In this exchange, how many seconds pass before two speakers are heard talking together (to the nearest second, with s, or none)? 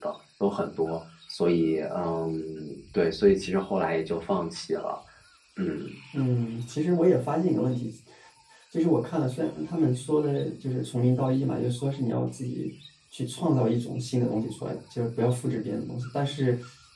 none